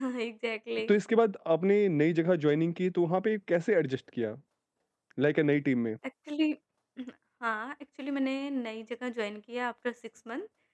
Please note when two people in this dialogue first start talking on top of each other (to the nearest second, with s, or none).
none